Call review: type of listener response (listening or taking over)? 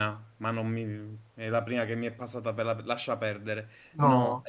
listening